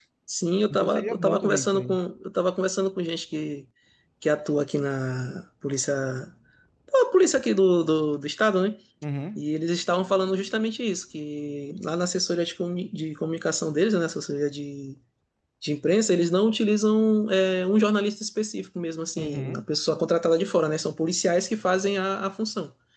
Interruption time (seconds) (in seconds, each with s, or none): 0.7 s